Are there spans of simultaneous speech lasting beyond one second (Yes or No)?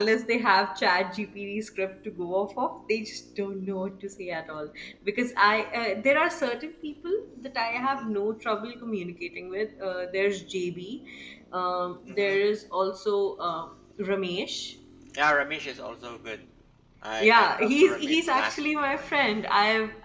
Yes